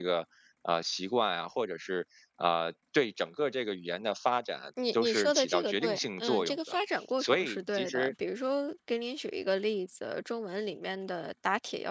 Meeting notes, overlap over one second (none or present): present